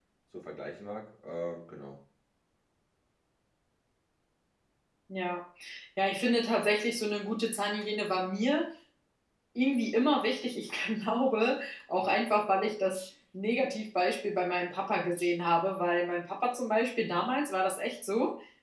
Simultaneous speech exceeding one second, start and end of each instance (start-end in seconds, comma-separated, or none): none